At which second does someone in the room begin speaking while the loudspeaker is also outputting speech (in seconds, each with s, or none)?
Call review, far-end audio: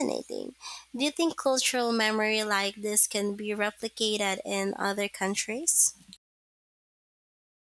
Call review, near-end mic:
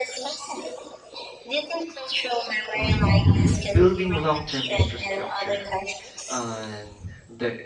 2.7 s